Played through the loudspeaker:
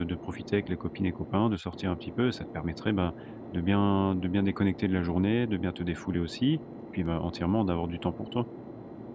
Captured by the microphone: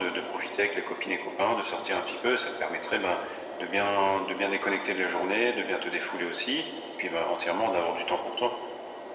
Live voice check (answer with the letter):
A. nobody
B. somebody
A